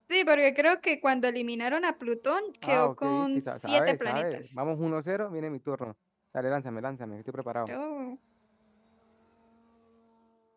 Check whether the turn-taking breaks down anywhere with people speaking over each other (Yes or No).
Yes